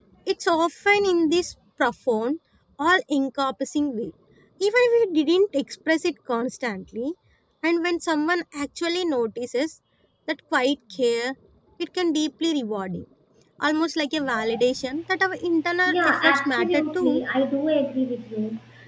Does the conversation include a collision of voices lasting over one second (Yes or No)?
Yes